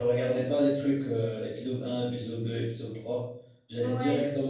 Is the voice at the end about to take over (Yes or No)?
No